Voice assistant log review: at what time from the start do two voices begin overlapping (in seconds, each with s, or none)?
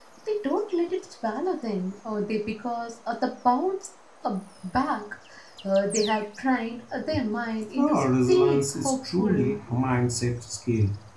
7.8 s